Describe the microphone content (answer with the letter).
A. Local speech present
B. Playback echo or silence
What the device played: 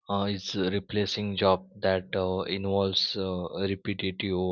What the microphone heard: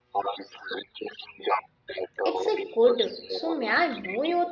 A